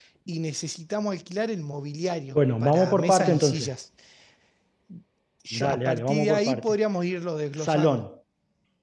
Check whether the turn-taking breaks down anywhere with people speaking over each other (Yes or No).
Yes